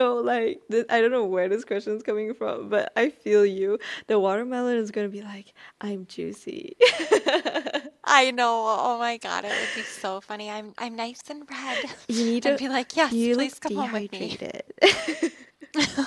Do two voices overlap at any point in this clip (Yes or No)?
Yes